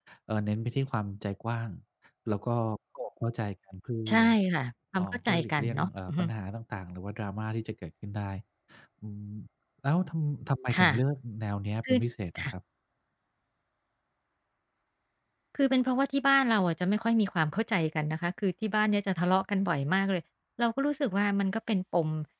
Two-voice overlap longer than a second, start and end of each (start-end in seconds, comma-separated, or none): 5.0-6.2